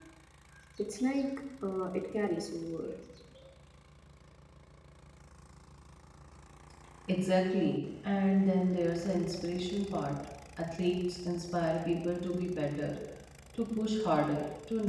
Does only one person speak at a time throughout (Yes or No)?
Yes